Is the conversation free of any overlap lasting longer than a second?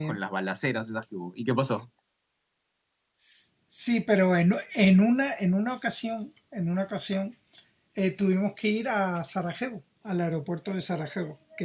Yes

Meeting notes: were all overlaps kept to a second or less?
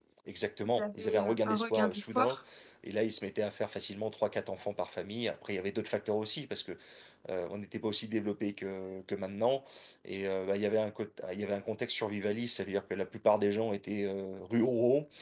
No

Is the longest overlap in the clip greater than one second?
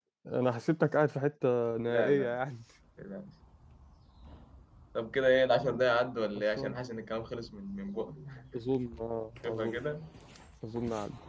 No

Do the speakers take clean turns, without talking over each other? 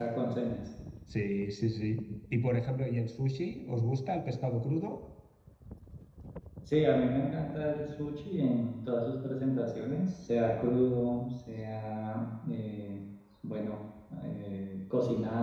Yes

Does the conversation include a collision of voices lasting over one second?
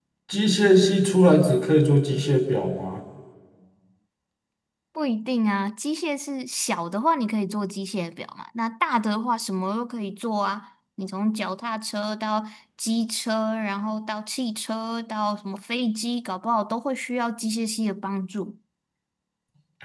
No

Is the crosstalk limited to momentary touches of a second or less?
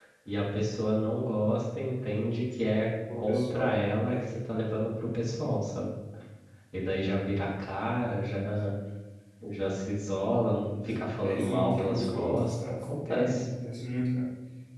No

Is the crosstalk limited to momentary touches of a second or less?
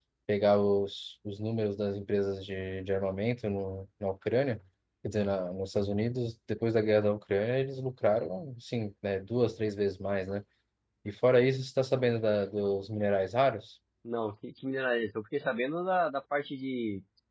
Yes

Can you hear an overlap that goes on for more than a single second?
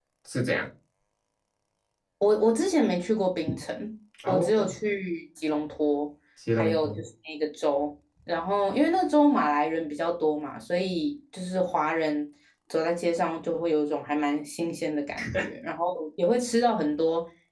No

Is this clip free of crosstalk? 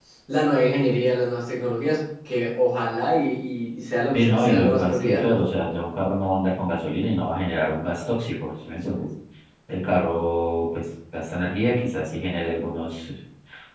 No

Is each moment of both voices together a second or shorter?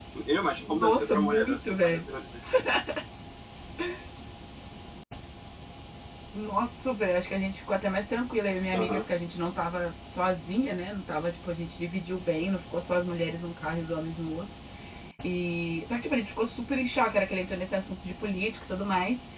No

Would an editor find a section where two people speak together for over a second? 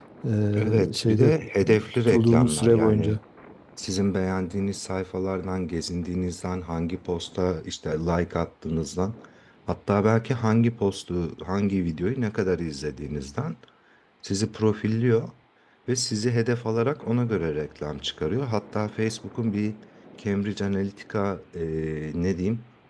Yes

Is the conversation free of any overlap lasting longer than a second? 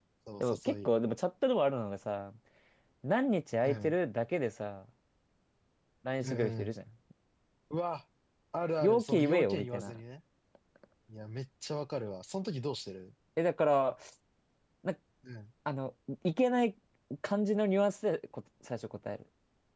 No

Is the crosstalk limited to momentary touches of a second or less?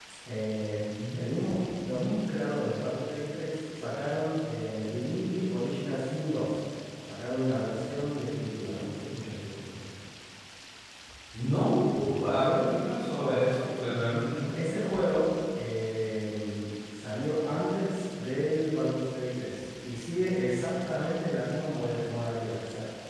Yes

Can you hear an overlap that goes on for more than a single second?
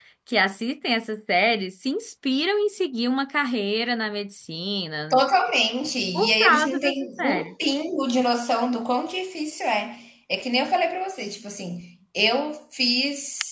Yes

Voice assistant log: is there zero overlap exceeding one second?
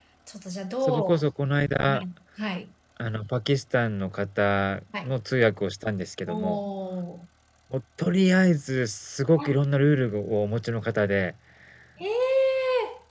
Yes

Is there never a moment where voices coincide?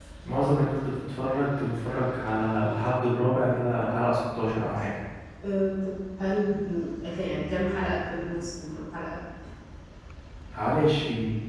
Yes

